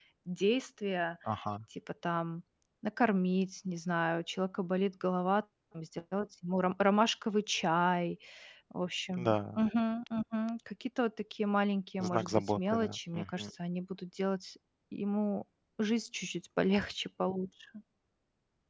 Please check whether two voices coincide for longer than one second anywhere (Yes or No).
Yes